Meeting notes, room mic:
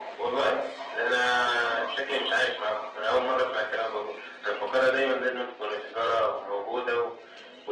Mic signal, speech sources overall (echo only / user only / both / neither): echo only